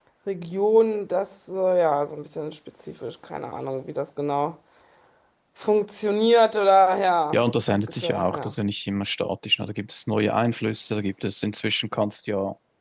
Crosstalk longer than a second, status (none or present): present